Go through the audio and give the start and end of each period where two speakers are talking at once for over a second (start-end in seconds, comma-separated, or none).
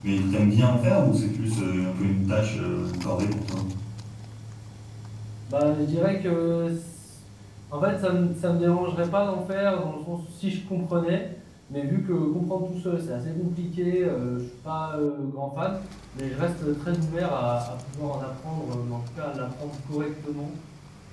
none